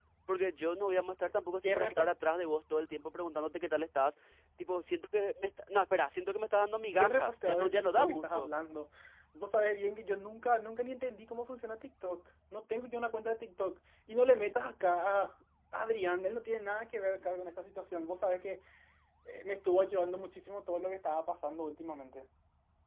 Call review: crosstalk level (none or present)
present